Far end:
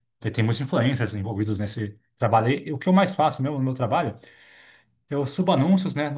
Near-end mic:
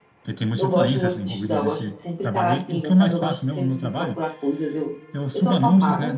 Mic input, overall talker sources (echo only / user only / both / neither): both